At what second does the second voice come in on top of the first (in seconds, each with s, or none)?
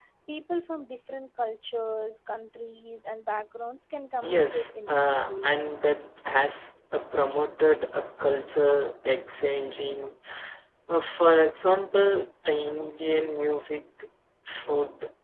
4.2 s